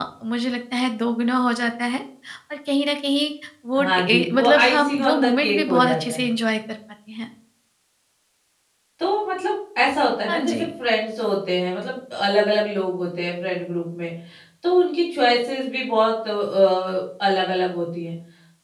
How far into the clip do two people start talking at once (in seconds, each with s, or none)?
3.8 s